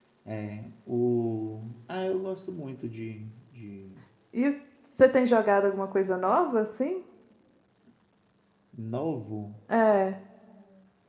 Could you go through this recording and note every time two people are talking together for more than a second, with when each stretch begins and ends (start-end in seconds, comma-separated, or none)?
none